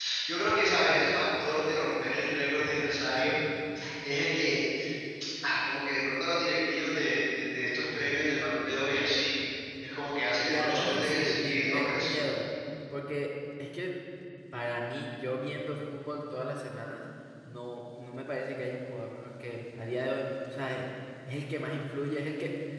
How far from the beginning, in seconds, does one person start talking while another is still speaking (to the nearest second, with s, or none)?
10 s